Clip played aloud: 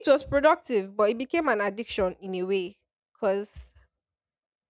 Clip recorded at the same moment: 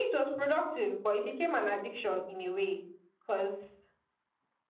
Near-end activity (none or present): none